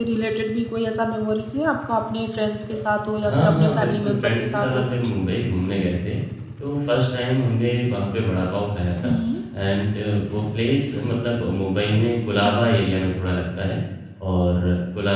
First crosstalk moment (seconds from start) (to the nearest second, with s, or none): 3 s